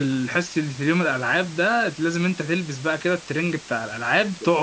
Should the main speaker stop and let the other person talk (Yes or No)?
Yes